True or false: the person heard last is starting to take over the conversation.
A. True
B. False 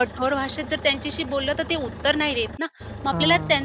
B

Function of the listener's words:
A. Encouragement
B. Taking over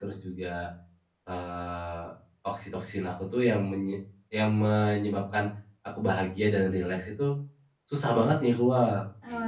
B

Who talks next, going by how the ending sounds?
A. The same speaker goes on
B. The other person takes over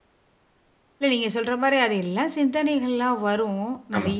A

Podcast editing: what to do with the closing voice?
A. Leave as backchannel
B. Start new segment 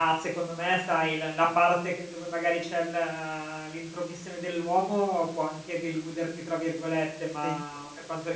A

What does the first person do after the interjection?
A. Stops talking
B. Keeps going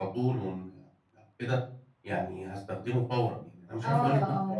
A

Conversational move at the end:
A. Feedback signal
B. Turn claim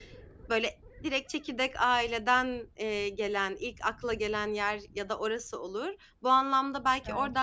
A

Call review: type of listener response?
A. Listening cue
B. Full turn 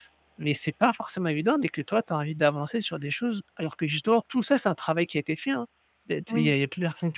A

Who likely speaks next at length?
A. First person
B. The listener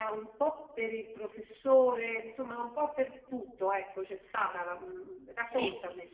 B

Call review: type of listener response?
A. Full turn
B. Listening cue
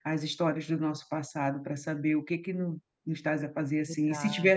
B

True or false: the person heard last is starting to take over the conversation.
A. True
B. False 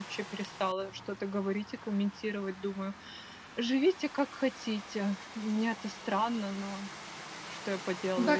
A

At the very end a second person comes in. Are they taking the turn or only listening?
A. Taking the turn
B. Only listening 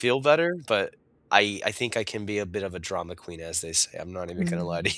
A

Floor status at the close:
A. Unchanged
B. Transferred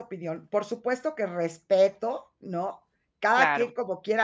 A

